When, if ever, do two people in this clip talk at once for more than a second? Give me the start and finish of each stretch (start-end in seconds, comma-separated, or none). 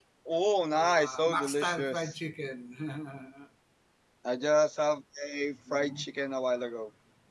0.7-2.1